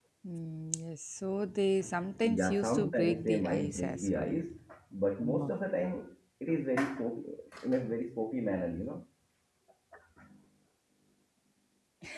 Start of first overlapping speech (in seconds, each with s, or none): 2.2 s